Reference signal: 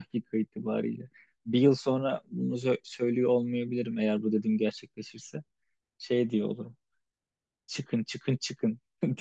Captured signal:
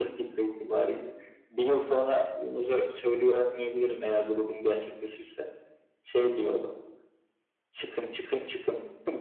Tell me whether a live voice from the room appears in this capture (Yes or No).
No